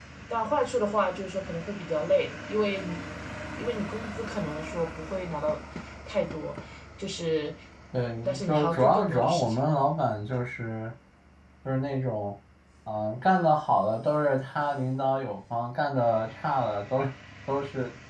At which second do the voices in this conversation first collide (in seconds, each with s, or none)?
8.2 s